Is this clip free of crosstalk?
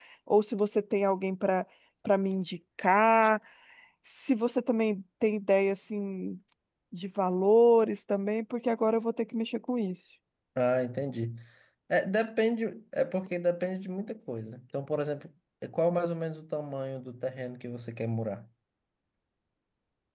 Yes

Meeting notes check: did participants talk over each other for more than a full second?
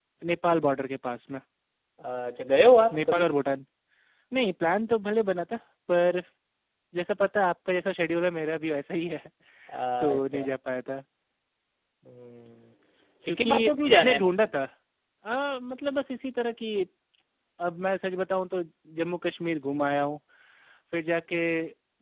Yes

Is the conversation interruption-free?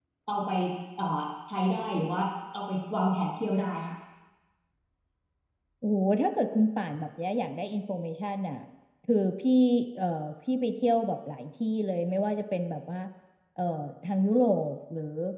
Yes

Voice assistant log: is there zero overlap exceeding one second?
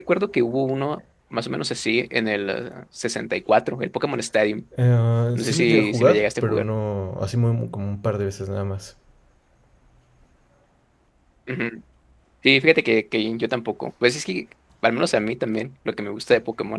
No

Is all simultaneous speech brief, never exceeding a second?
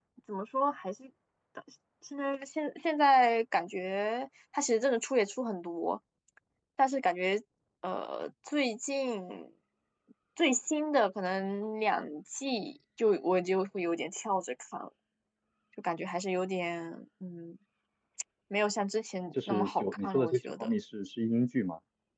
No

